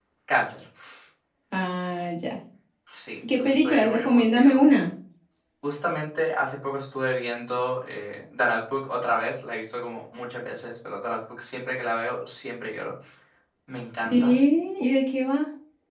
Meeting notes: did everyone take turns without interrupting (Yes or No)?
No